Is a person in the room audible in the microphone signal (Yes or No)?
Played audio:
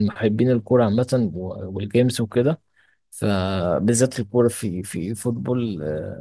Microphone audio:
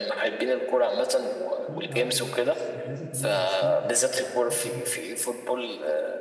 Yes